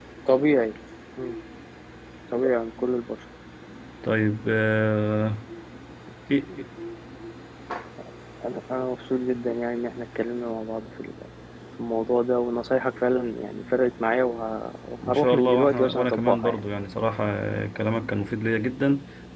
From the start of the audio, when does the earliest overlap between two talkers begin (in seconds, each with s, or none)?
15.0 s